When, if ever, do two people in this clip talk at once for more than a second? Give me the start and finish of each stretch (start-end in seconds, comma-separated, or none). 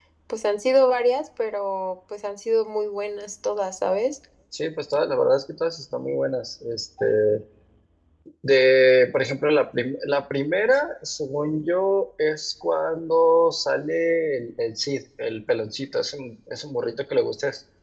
none